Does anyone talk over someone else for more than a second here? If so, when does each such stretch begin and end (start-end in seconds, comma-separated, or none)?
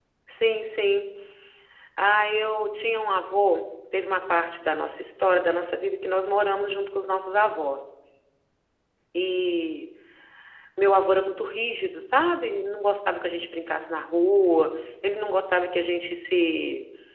none